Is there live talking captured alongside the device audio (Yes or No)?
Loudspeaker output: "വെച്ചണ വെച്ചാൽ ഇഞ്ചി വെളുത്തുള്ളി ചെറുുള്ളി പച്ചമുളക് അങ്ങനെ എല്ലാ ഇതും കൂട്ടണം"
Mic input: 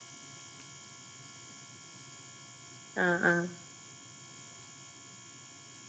Yes